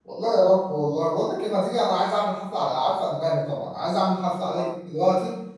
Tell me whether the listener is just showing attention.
Yes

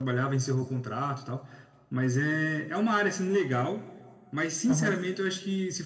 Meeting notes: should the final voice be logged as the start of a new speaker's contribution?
No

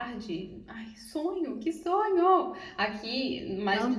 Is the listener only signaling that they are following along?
Yes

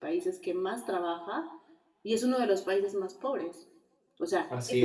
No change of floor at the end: Yes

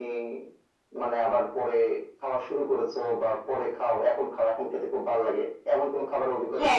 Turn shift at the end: Yes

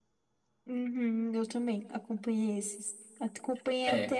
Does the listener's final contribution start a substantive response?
No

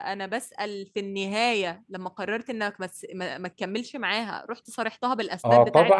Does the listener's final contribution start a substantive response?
Yes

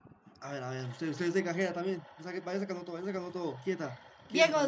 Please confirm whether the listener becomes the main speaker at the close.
Yes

